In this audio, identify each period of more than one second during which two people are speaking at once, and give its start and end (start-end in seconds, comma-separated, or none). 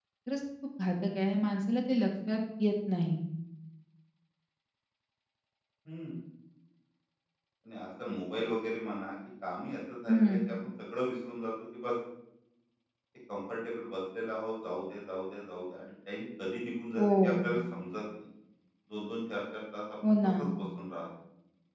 none